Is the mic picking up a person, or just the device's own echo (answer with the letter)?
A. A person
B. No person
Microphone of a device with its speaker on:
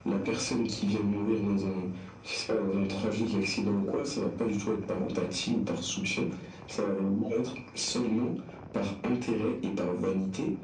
B